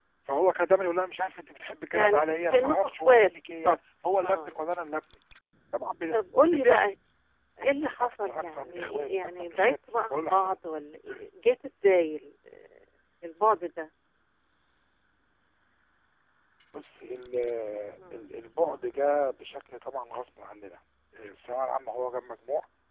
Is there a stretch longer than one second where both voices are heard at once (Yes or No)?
Yes